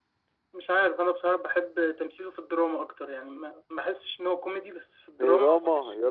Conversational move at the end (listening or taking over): taking over